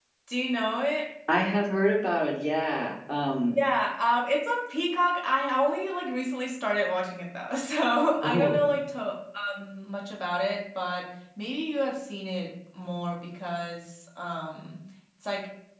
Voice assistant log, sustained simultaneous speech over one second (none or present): none